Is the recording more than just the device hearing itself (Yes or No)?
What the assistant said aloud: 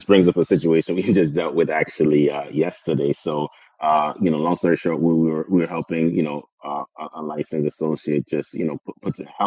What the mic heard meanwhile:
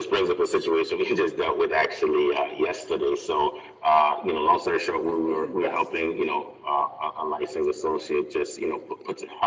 Yes